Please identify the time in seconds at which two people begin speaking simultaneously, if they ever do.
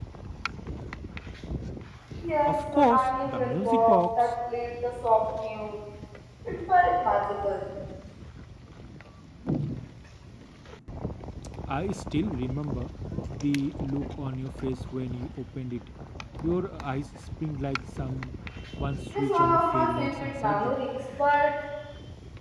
2.5 s

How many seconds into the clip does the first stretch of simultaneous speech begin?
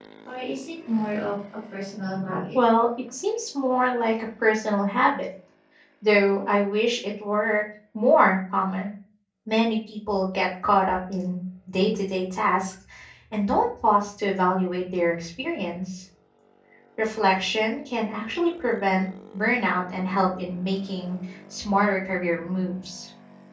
none

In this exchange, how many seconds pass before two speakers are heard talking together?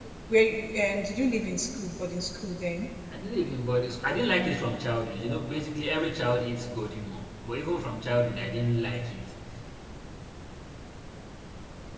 none

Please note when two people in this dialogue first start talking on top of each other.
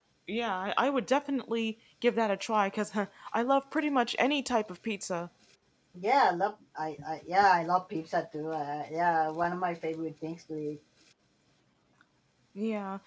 none

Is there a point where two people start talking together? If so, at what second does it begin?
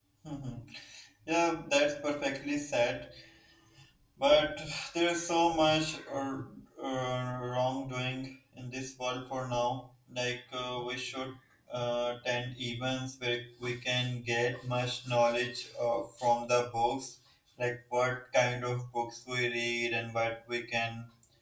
none

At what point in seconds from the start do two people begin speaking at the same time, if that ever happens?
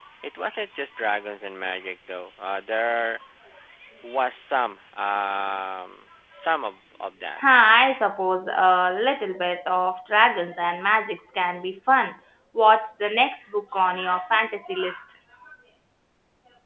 none

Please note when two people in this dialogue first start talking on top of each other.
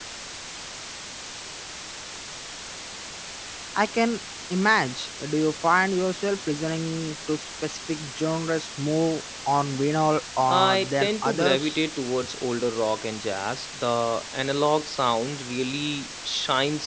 10.5 s

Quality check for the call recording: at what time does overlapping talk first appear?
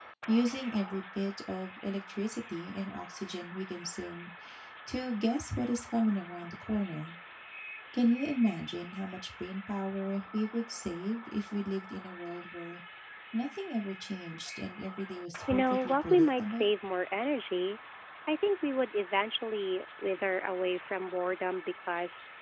15.5 s

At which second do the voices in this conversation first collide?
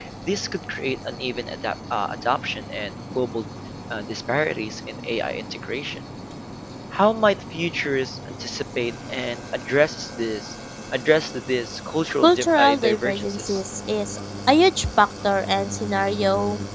12.2 s

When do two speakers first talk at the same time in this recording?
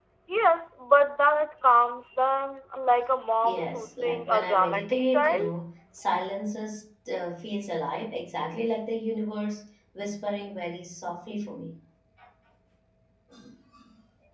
3.4 s

